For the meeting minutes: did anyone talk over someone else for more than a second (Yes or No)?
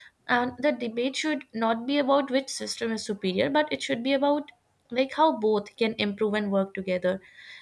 No